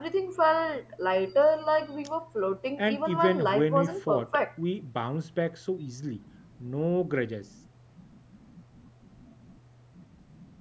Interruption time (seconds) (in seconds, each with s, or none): 2.8 s